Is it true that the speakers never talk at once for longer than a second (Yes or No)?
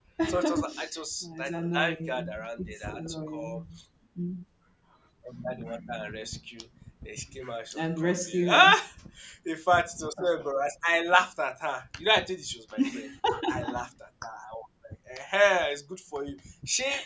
No